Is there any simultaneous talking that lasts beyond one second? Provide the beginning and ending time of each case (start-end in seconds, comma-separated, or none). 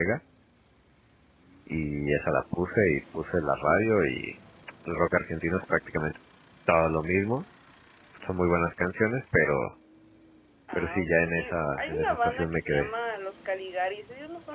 10.7-12.9